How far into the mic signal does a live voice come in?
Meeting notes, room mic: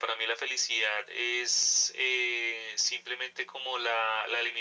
none

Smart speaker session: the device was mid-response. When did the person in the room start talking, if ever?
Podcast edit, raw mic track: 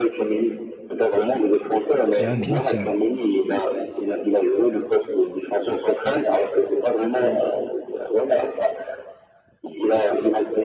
2.2 s

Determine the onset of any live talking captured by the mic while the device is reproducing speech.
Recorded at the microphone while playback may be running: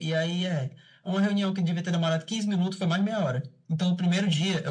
none

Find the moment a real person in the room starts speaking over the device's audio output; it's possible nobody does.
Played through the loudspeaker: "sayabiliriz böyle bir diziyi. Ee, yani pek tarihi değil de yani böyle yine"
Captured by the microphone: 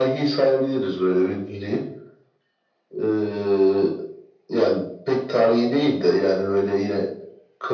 none

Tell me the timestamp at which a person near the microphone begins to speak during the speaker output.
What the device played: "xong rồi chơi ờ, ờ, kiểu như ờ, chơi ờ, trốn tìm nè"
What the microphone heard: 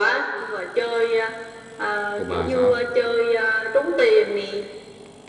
2.1 s

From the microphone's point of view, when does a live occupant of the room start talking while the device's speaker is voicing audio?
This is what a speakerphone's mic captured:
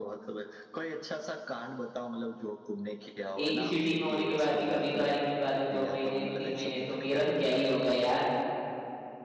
3.4 s

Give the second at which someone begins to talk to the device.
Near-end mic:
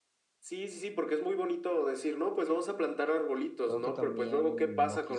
3.6 s

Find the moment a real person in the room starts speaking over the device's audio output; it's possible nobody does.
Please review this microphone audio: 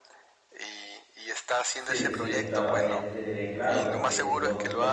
1.7 s

